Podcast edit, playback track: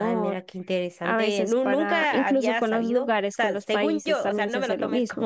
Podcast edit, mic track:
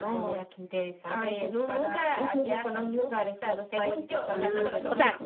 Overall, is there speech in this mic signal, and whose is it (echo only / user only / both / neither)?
both